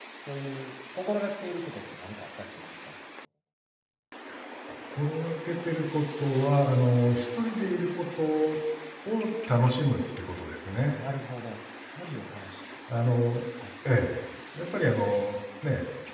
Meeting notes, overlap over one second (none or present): none